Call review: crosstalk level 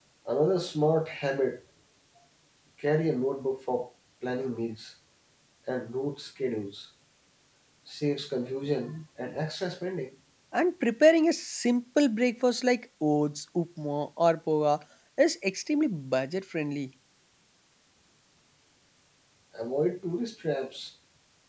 none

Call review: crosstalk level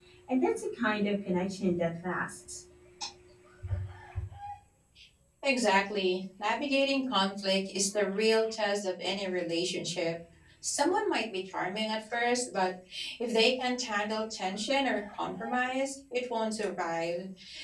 none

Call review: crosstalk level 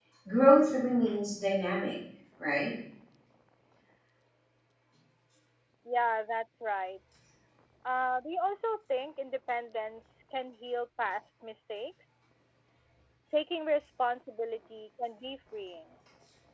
none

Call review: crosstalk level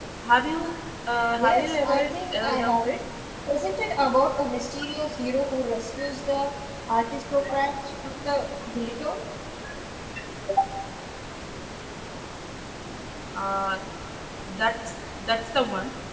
present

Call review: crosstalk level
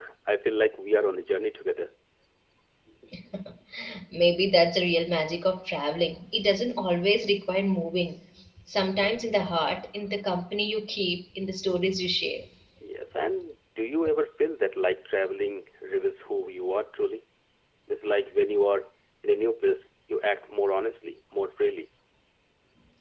none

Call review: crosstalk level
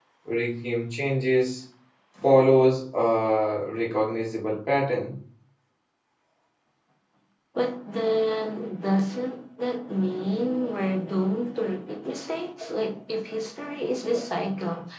none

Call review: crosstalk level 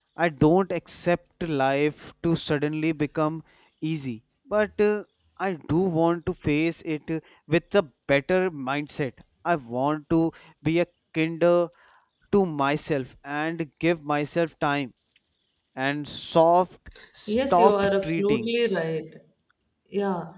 present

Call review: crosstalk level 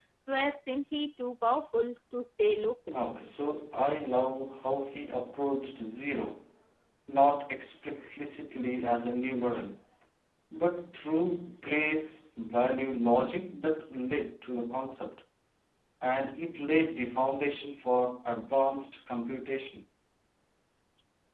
none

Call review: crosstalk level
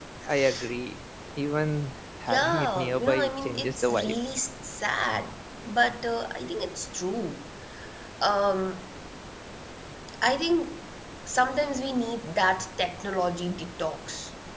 present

